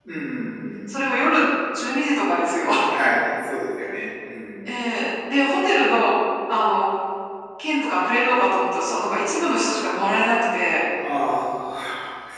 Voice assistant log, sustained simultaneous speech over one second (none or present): none